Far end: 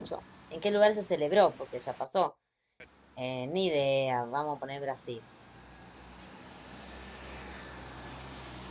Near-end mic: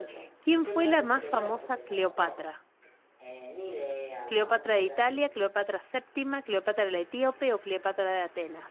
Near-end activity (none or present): present